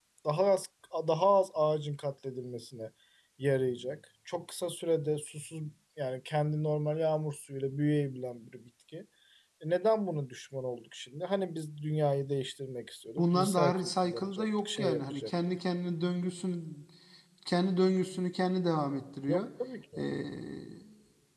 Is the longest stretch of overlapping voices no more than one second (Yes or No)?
No